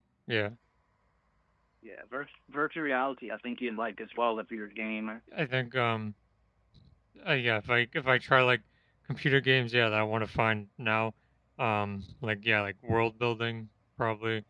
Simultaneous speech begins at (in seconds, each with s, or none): none